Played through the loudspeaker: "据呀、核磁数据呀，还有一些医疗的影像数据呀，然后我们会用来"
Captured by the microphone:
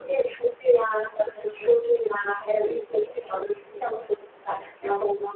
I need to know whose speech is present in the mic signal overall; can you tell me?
echo only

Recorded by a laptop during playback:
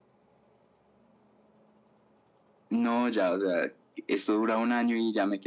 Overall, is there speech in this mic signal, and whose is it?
echo only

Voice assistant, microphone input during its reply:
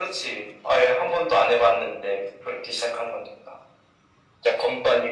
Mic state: echo only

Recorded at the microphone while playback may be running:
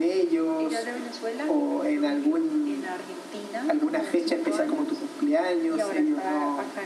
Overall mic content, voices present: echo only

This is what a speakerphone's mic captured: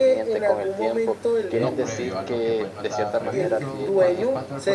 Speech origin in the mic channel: both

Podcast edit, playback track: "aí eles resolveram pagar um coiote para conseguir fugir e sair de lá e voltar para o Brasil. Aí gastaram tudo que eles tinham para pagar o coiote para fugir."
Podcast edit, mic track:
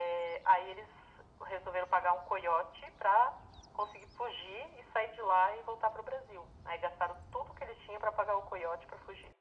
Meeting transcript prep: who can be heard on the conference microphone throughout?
echo only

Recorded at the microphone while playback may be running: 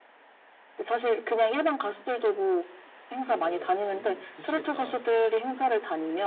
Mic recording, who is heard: both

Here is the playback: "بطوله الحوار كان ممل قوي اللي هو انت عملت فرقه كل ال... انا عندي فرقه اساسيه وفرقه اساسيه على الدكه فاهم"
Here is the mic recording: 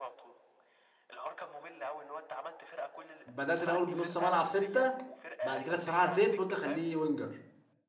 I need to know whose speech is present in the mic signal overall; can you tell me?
both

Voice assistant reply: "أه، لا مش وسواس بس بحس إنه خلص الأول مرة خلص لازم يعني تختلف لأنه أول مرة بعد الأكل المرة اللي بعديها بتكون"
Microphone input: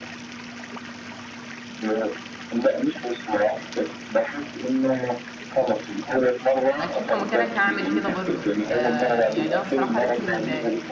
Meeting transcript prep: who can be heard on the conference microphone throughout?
both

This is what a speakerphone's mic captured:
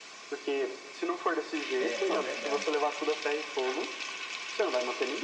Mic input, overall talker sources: both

